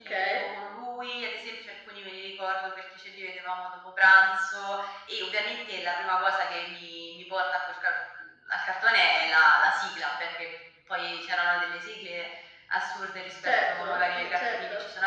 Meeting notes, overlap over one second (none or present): present